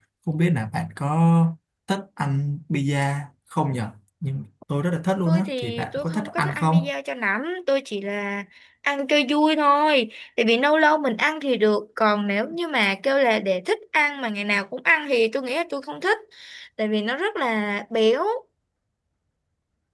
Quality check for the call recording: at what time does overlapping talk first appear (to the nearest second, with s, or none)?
5 s